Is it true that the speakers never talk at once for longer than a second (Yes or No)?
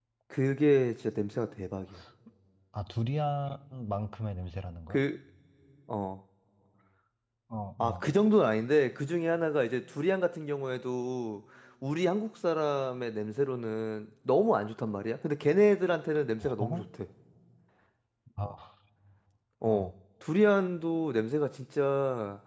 Yes